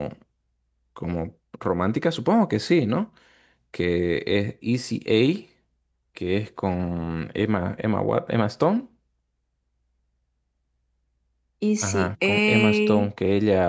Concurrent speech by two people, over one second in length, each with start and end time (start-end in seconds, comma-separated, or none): 11.8-13.1